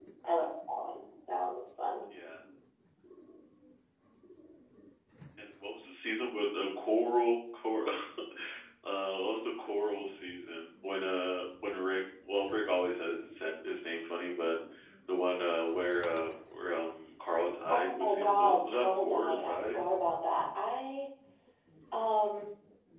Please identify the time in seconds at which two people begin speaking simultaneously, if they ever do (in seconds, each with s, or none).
17.7 s